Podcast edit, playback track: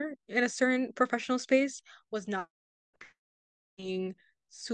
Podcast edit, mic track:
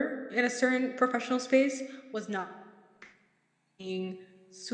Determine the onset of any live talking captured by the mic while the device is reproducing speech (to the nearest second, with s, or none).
none